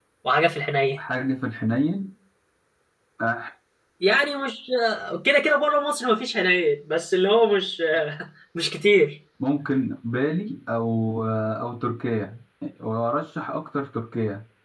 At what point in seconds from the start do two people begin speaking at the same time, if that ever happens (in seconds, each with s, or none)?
none